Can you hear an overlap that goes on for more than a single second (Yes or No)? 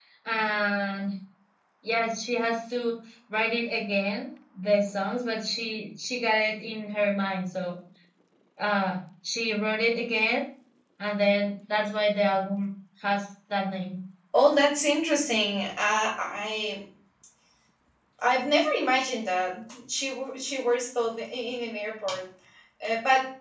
No